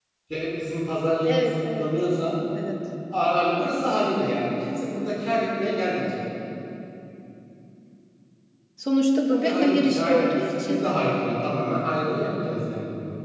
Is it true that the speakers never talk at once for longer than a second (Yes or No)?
No